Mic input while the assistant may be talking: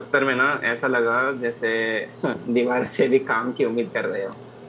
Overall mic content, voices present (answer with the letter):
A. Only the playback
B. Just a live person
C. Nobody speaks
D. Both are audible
A